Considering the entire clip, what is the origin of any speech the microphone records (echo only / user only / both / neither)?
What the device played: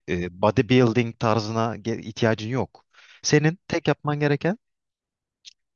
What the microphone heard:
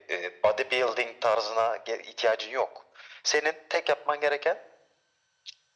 echo only